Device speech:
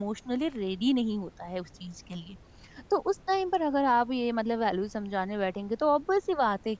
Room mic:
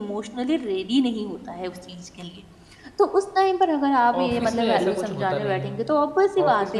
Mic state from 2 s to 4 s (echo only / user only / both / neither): echo only